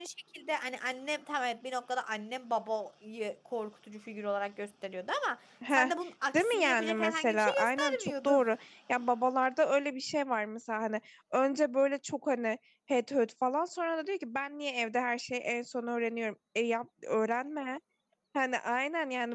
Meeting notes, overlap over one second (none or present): present